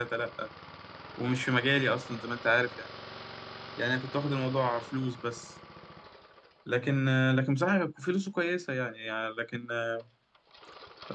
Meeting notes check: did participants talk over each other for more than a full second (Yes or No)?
No